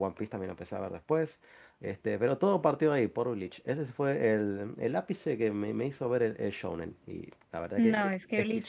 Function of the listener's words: taking over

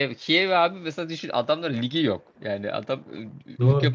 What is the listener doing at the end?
listening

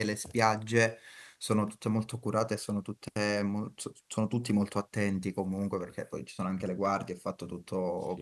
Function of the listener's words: listening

